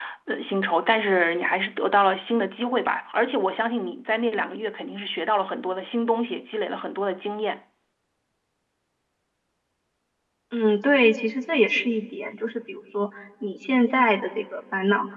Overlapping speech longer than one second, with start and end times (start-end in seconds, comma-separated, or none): none